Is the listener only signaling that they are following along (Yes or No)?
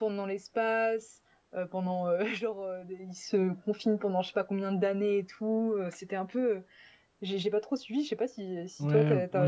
No